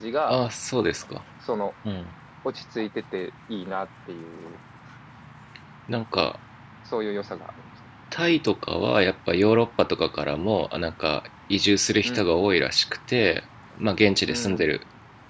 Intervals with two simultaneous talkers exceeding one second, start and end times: none

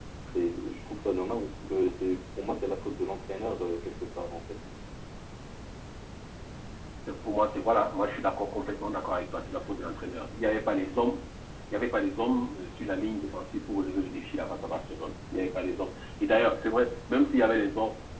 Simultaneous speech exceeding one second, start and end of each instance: none

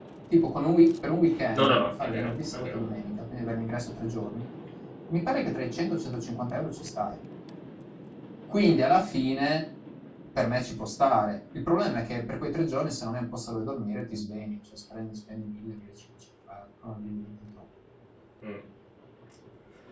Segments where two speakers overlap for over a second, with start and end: 1.6-2.8

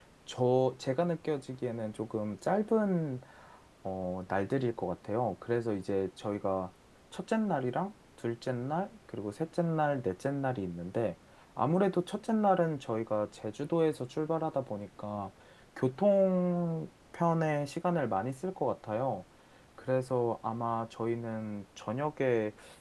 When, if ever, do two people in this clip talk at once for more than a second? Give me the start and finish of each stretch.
none

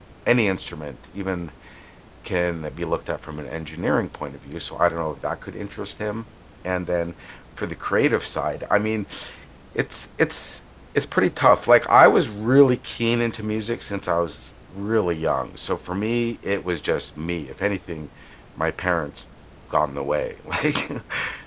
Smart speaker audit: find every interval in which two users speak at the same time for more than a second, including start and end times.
none

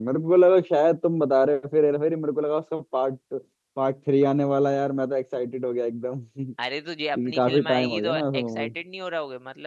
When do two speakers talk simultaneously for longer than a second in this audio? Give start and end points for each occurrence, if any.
7.3-8.7

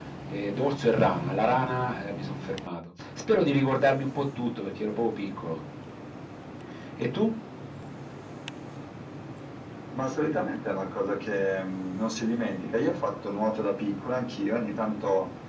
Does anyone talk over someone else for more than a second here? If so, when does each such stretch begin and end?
none

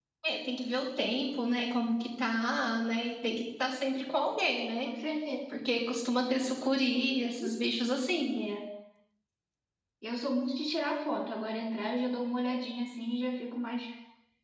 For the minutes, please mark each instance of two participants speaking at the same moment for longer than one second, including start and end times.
none

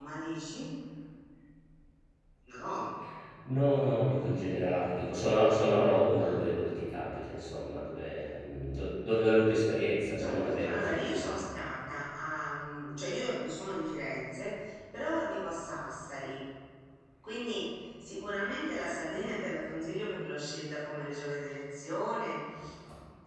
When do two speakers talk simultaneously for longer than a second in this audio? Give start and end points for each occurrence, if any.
10.2-11.4

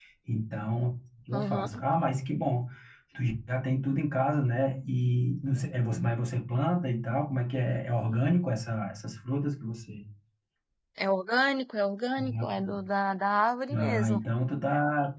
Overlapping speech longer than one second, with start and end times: none

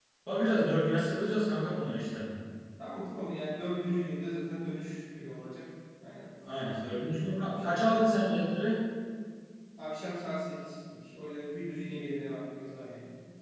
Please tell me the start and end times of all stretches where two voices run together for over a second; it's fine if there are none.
6.5-8.1

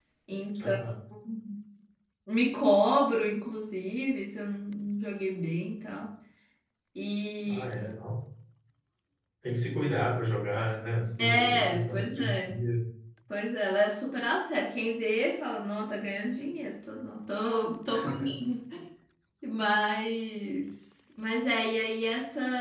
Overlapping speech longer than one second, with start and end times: 11.2-12.6

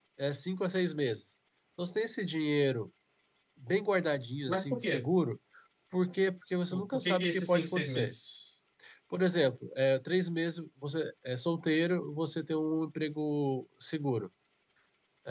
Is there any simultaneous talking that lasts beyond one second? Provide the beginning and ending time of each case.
6.7-8.1

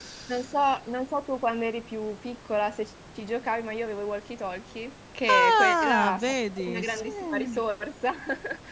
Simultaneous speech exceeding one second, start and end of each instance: 5.3-7.6

